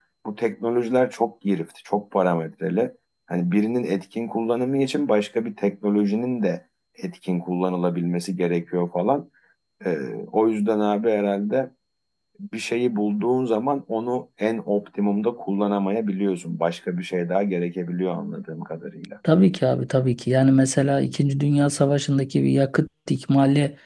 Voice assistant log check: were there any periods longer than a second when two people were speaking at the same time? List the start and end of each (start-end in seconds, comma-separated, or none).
none